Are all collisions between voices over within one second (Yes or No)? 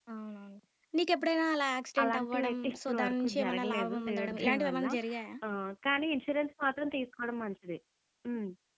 No